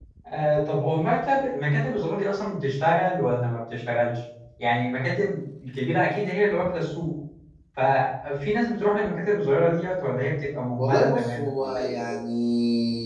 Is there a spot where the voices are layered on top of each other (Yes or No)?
Yes